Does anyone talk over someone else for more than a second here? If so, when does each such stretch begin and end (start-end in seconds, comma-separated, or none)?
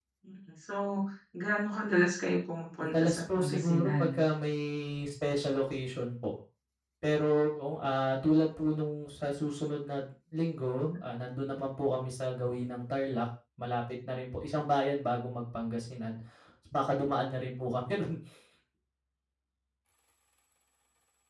2.7-4.0